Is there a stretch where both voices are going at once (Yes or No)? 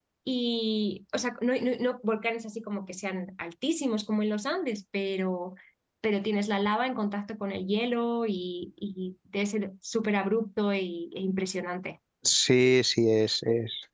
No